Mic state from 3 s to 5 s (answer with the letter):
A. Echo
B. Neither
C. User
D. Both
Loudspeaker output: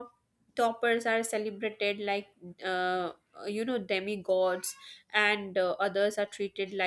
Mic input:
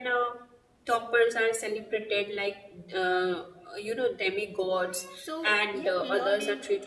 A